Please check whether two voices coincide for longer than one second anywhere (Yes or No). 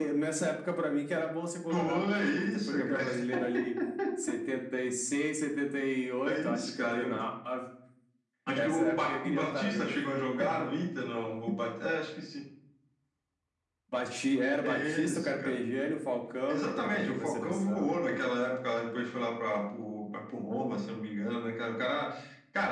Yes